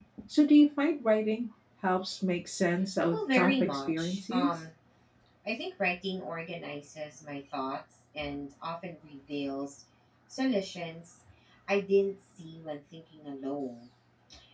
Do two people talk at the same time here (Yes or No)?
Yes